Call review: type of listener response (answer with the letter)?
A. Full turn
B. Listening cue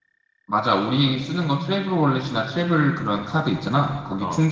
B